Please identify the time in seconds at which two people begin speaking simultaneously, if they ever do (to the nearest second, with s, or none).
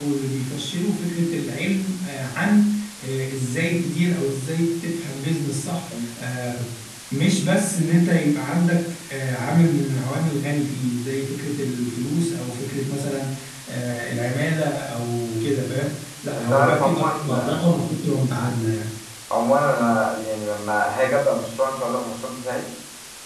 16 s